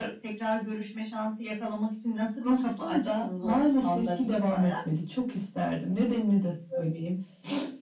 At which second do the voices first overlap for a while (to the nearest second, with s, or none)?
2 s